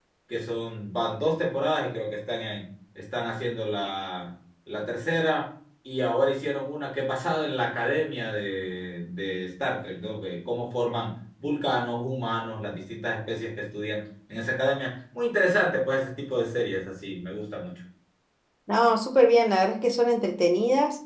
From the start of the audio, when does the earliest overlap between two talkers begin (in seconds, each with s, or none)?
none